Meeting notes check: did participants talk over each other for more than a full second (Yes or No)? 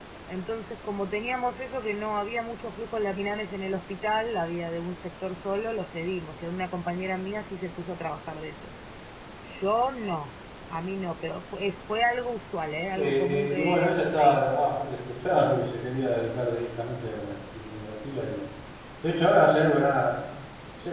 Yes